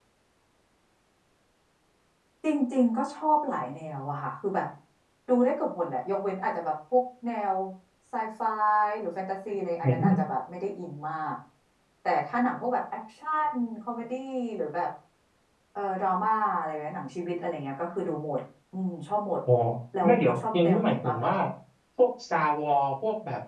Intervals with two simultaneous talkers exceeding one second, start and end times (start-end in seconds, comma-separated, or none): 20.0-21.3